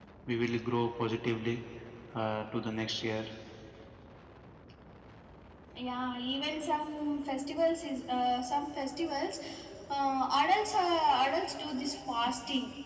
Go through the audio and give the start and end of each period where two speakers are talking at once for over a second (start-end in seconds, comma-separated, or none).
none